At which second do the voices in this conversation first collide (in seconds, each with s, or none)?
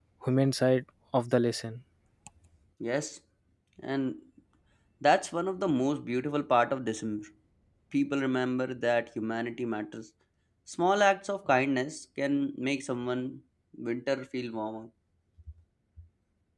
none